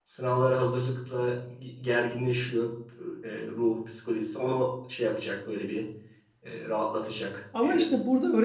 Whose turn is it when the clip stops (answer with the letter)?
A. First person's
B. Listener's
B